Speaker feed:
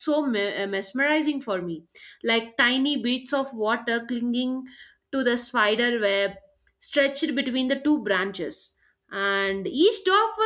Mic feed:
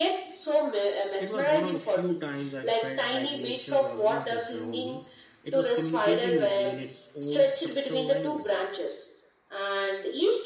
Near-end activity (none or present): present